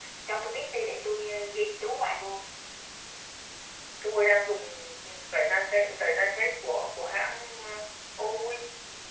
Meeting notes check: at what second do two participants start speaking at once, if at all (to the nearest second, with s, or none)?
none